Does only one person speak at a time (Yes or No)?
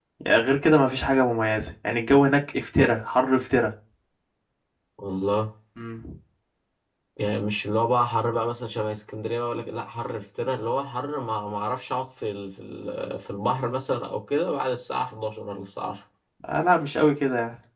Yes